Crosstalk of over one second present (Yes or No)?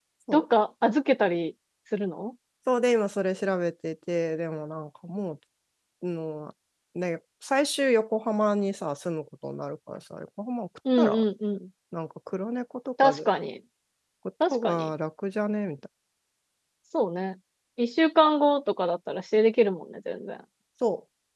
No